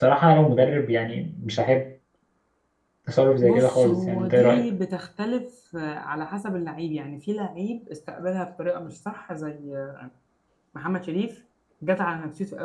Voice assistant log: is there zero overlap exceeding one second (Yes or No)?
No